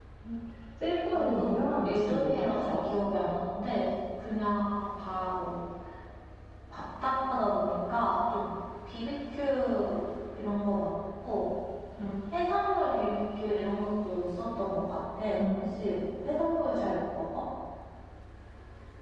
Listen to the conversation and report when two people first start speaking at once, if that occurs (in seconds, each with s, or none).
1.1 s